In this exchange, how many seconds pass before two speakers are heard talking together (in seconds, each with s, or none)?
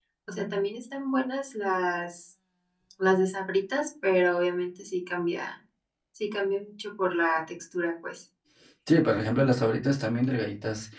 none